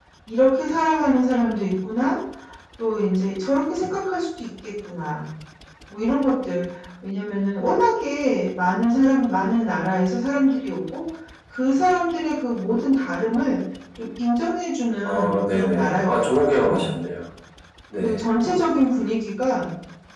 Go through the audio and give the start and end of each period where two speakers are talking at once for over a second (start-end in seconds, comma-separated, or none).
15.0-16.9